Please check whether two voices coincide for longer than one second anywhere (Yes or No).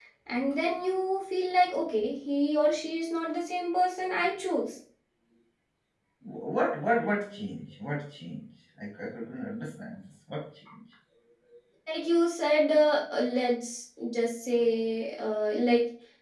No